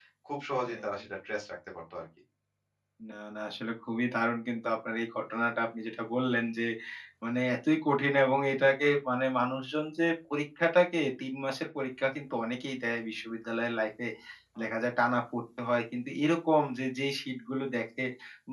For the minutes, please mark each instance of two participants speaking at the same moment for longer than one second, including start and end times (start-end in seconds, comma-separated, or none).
none